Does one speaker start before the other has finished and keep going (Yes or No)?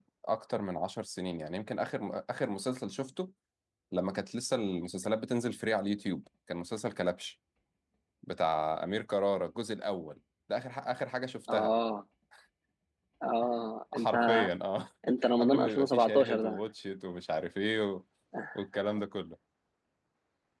Yes